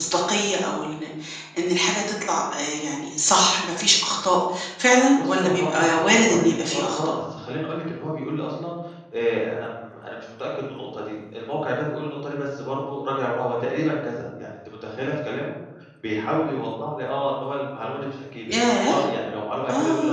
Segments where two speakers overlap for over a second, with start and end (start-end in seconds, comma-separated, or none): 5.2-7.2